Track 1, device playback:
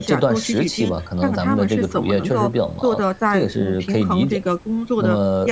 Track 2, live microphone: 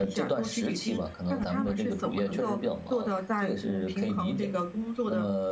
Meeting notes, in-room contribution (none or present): none